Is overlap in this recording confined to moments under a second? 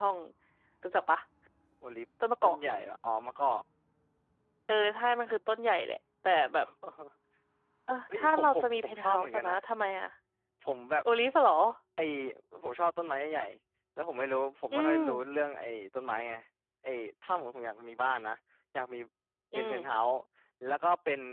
No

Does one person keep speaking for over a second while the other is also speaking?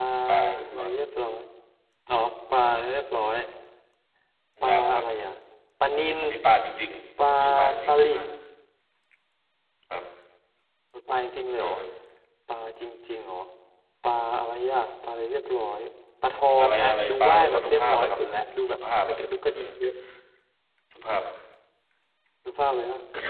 Yes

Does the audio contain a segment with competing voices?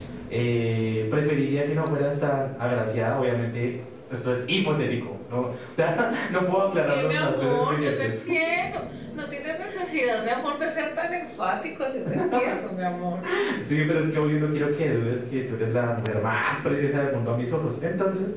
Yes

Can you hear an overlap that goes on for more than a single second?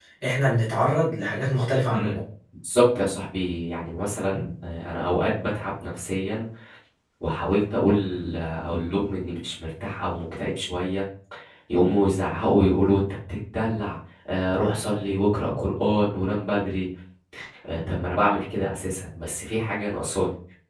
No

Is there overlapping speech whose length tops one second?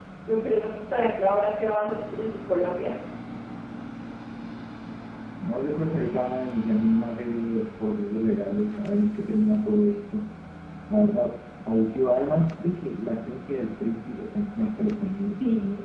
No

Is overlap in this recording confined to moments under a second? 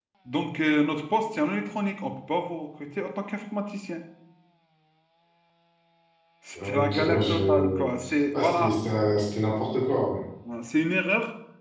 No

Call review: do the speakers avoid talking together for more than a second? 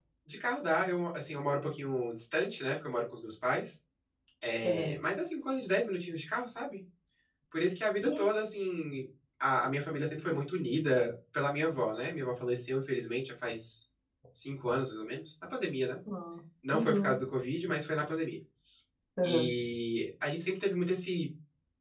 Yes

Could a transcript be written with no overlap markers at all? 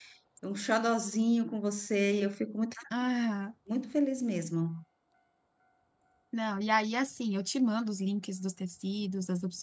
Yes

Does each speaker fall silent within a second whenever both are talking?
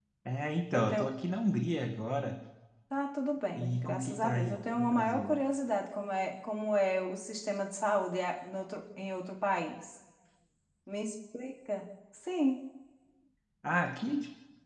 No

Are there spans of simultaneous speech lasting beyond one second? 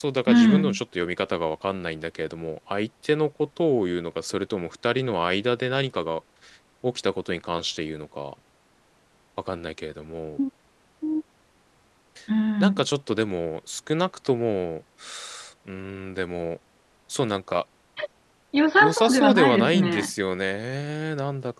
Yes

